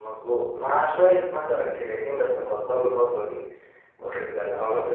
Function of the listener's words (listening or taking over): listening